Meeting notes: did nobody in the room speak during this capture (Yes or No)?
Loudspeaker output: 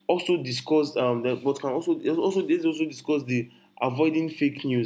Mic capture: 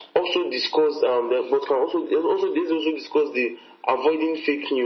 Yes